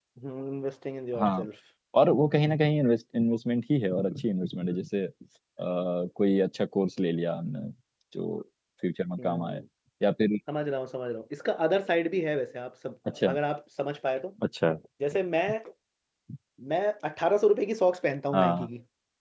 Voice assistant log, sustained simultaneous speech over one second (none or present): none